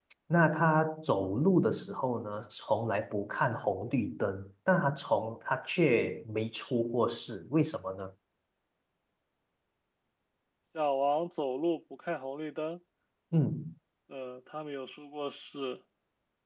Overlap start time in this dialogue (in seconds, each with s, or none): none